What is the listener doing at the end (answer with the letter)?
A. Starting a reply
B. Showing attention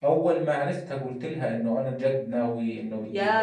A